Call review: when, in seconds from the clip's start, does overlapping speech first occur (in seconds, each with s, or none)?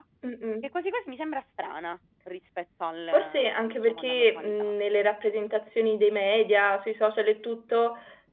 3.1 s